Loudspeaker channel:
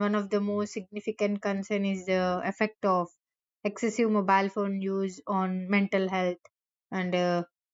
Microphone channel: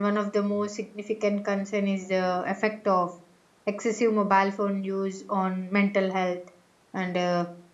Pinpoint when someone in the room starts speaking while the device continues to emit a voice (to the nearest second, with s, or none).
none